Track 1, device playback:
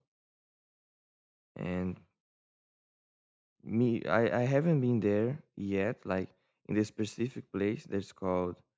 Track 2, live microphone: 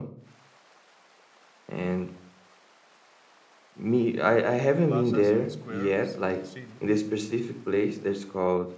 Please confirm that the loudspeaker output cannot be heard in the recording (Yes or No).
No